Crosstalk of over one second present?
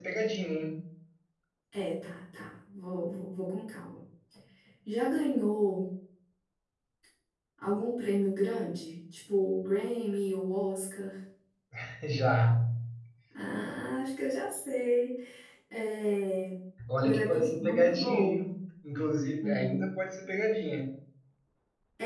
Yes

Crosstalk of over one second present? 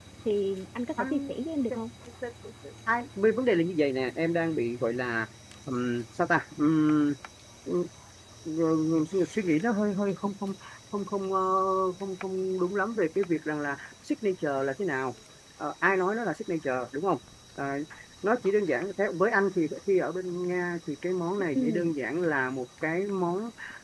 No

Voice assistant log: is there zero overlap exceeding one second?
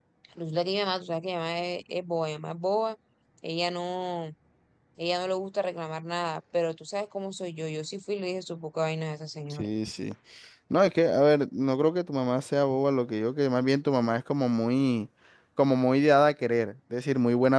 Yes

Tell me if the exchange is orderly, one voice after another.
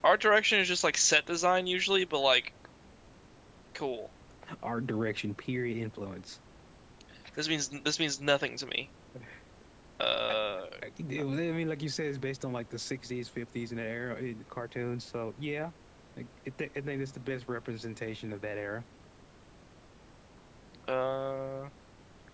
Yes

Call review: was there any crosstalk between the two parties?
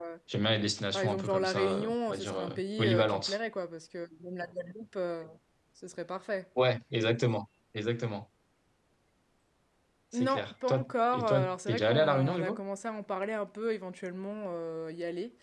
Yes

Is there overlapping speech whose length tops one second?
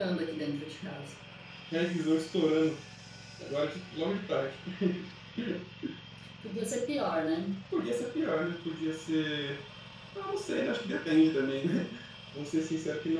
No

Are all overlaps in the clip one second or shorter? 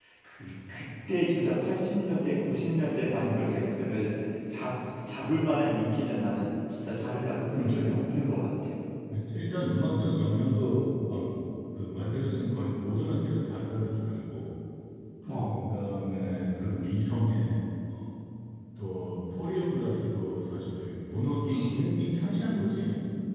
Yes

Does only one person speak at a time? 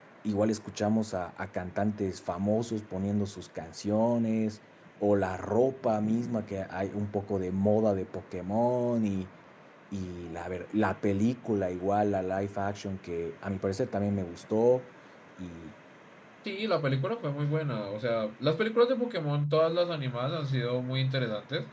Yes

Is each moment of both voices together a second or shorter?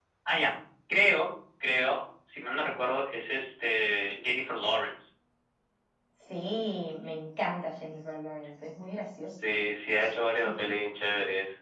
Yes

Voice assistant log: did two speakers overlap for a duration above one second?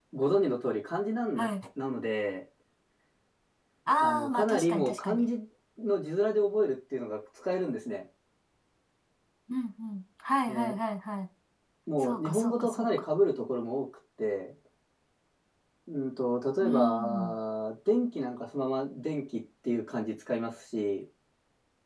Yes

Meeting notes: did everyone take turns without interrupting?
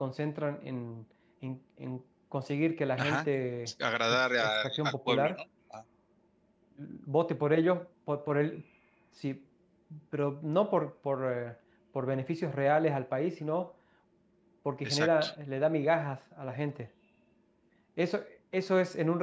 No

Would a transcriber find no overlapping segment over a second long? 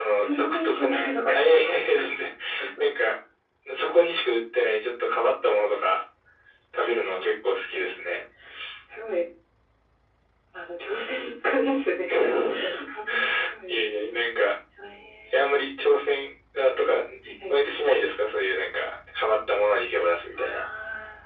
No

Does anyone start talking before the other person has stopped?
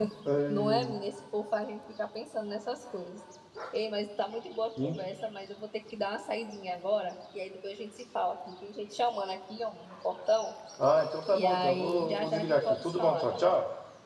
Yes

